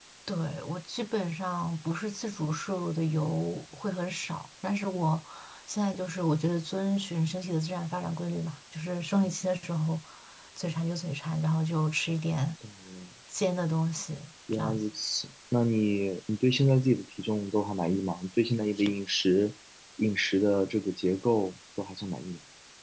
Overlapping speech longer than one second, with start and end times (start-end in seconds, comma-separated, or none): none